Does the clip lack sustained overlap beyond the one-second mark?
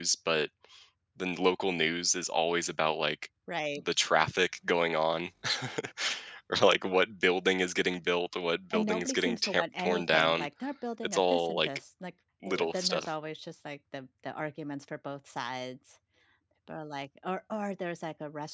No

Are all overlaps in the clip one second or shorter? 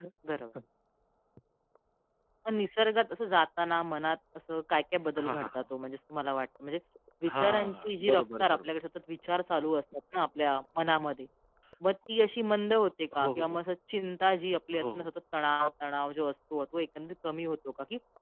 No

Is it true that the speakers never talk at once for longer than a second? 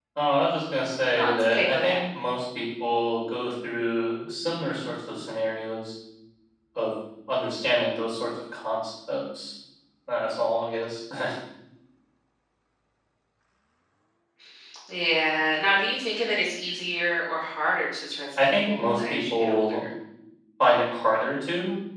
No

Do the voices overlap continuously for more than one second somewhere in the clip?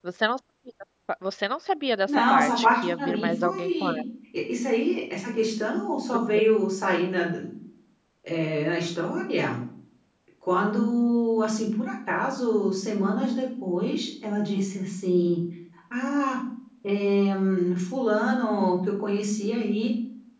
Yes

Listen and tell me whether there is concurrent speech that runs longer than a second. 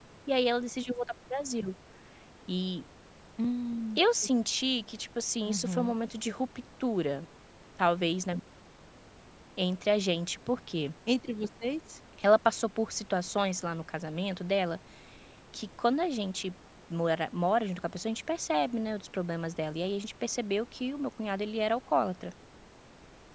No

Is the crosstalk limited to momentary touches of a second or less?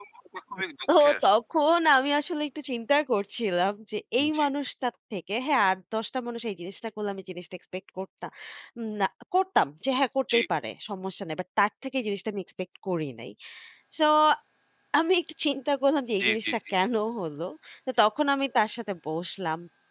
Yes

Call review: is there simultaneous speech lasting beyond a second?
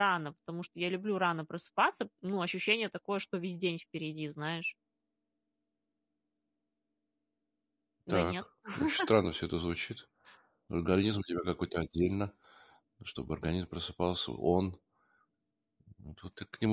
No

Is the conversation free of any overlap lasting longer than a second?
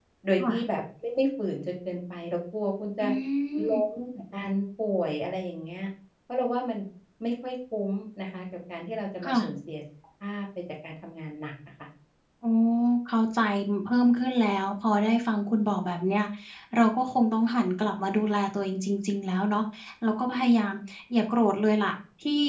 Yes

